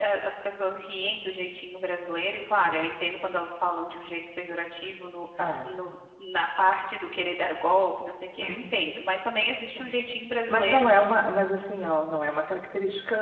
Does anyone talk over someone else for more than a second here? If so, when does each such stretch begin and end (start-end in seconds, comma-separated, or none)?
none